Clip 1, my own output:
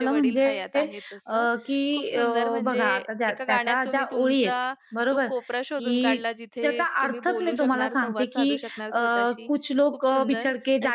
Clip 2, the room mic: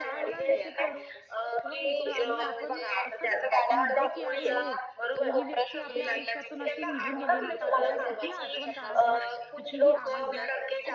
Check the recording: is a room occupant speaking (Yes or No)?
Yes